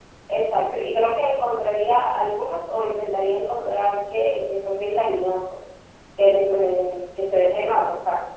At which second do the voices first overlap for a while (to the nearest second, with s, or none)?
none